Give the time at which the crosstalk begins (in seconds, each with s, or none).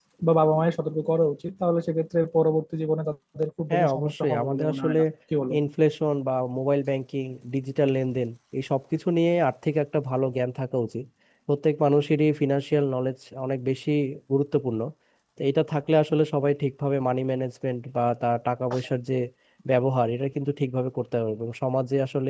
3.7 s